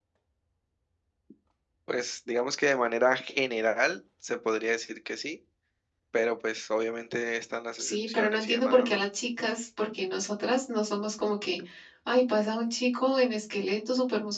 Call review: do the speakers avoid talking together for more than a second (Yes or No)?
No